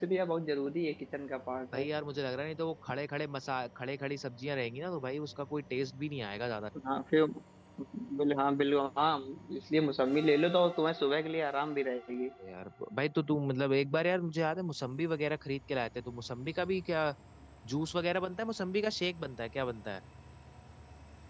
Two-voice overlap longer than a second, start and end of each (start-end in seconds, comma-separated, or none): none